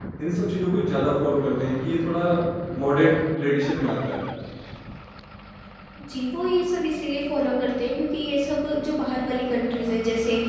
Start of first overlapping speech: none

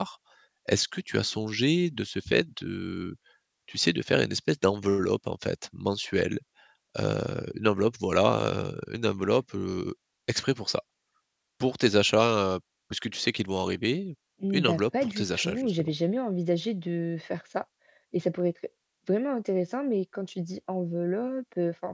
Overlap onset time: 14.5 s

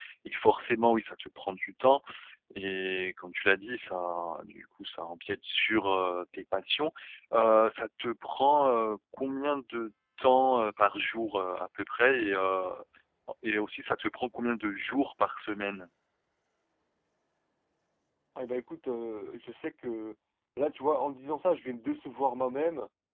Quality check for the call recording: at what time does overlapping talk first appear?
none

